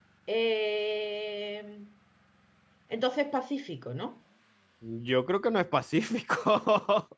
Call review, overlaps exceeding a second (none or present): none